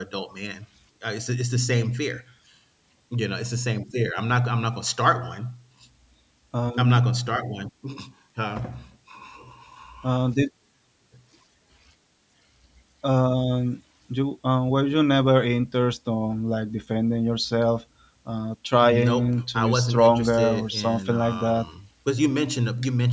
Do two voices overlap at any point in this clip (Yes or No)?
Yes